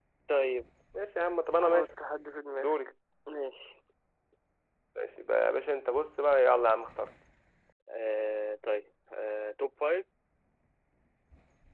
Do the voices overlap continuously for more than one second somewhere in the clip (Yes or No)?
No